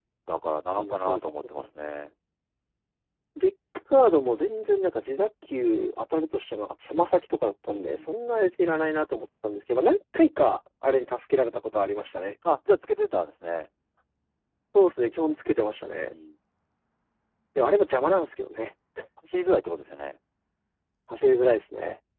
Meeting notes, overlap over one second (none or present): none